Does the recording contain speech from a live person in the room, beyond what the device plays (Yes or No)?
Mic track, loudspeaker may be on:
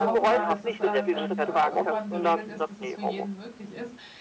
Yes